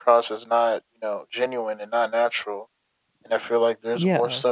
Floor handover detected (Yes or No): No